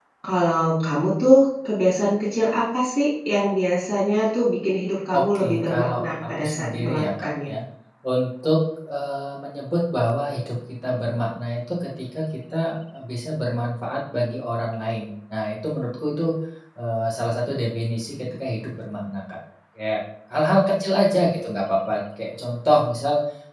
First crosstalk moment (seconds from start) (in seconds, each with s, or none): 5.1 s